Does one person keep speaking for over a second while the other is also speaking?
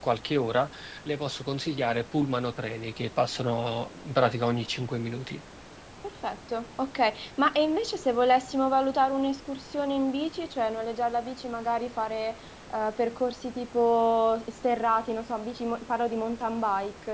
No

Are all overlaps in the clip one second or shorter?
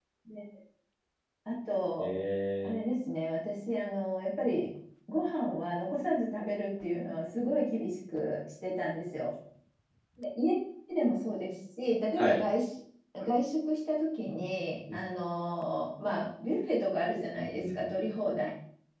Yes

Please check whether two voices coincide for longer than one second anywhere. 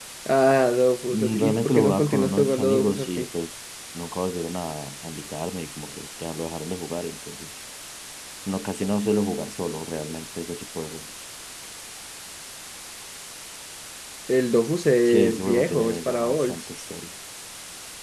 Yes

